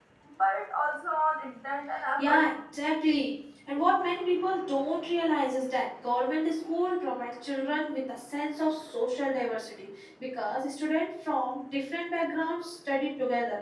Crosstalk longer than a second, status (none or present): none